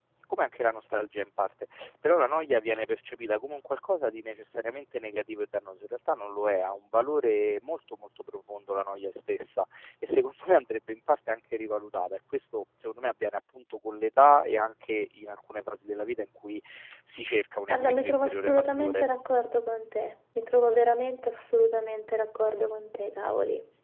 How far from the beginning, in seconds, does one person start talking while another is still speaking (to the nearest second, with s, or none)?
18 s